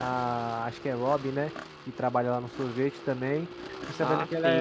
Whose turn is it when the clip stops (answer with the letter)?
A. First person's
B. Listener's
A